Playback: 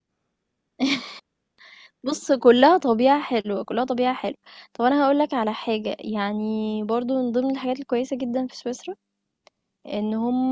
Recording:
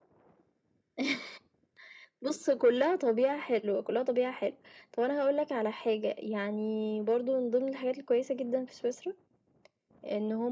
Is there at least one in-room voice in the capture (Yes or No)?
No